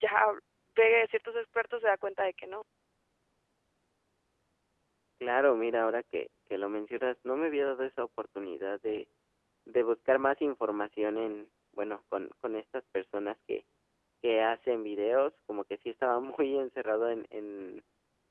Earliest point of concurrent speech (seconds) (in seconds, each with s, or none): none